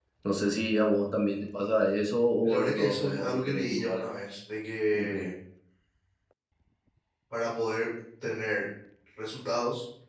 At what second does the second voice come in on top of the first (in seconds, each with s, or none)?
2.4 s